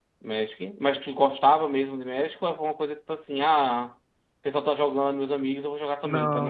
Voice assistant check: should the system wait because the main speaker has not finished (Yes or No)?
No